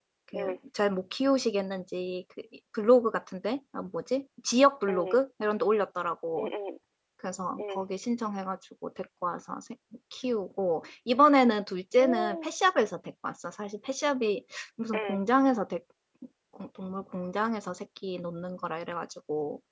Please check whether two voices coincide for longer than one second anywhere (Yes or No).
No